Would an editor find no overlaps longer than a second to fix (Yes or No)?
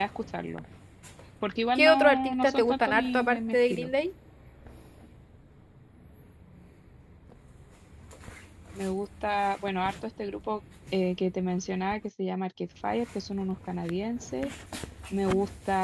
No